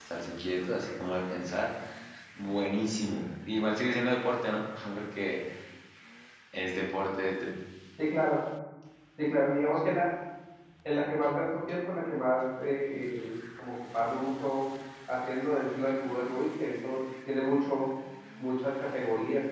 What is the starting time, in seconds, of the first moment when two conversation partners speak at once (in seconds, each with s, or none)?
none